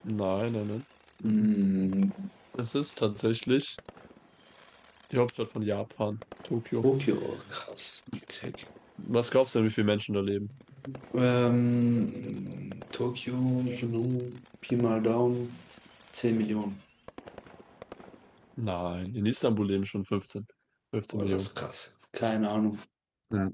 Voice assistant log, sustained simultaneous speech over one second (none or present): none